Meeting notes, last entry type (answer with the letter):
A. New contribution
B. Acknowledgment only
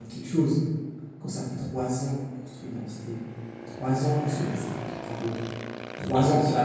B